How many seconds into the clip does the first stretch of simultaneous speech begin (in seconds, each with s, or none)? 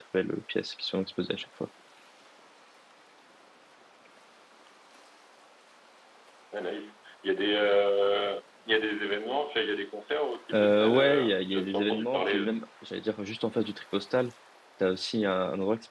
10.5 s